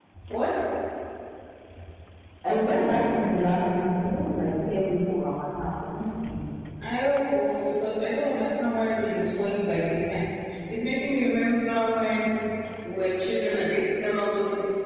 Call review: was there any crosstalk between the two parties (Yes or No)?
No